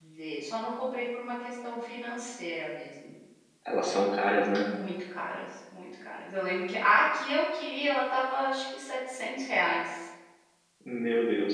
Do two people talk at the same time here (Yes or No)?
No